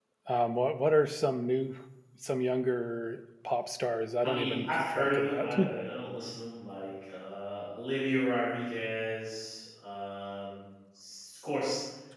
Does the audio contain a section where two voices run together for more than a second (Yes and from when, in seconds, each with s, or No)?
Yes, from 4.2 s